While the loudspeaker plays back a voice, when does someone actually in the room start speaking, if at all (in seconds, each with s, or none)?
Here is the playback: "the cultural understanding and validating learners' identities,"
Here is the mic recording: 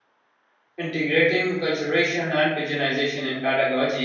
0.8 s